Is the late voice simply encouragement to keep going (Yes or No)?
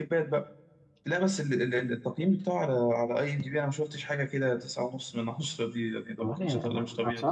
No